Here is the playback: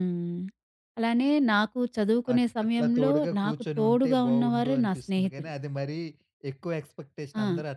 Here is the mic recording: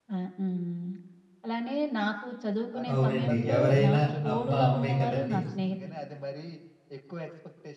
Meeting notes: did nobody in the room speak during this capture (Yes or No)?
No